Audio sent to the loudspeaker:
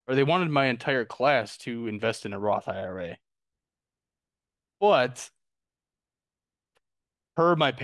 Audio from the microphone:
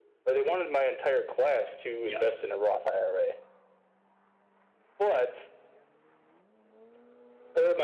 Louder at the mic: echo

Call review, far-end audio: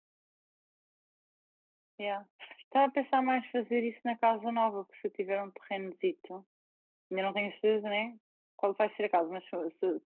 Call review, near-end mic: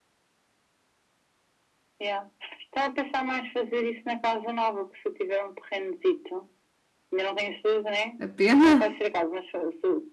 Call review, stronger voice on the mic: user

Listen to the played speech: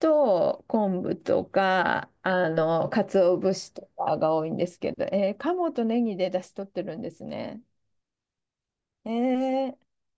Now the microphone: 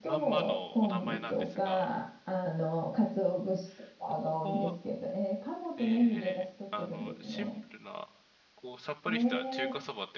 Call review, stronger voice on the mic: echo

